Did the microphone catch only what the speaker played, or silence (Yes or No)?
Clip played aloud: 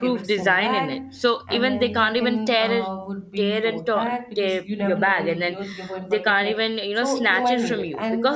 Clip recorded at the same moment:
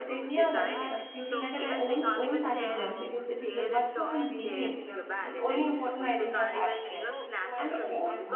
No